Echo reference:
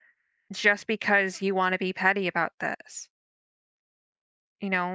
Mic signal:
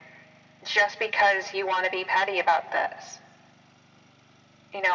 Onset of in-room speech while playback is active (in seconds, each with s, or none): none